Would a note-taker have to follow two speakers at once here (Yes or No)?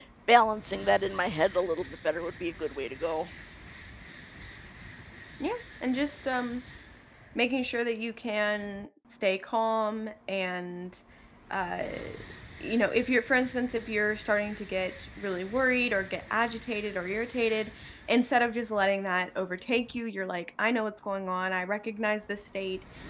No